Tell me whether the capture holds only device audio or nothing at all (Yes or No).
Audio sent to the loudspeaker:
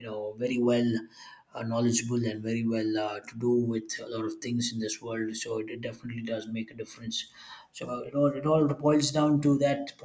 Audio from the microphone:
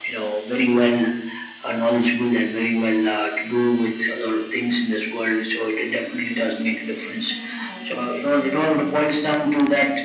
No